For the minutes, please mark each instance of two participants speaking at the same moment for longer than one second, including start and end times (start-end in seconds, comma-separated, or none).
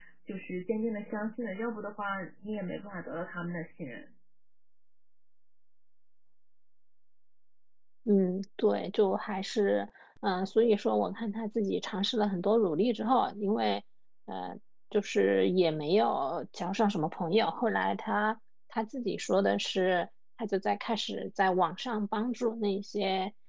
none